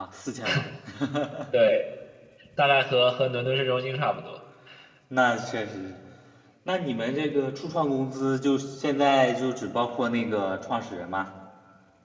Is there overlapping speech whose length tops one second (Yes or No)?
No